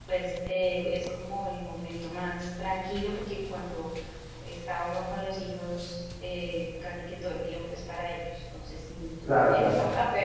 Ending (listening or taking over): listening